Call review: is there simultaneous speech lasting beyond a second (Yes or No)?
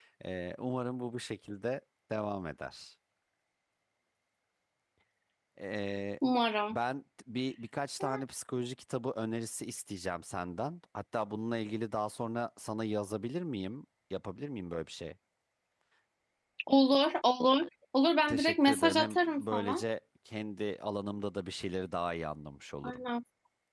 Yes